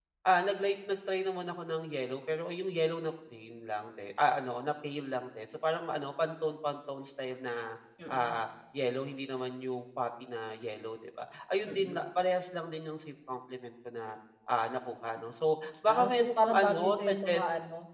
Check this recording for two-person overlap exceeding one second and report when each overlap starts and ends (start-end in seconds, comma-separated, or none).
15.9-17.4